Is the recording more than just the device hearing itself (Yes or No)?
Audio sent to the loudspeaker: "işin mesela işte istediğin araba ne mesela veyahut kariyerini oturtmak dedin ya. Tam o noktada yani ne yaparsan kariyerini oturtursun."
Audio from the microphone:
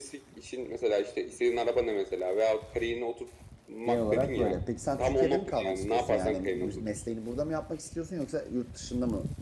Yes